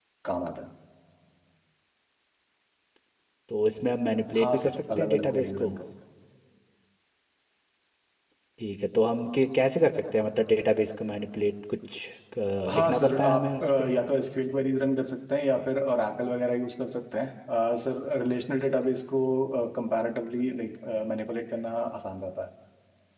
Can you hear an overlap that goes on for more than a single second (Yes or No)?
Yes